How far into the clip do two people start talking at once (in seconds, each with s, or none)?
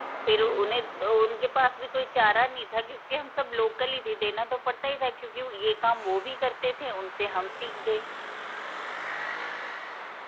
none